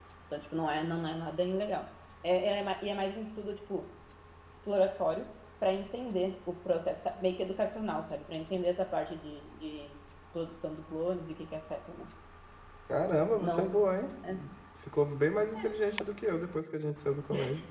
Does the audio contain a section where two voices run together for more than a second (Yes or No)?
No